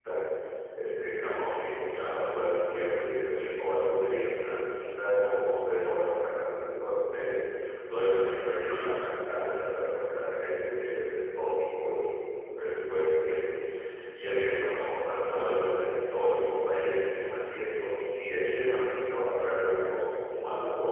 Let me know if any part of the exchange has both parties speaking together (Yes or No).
No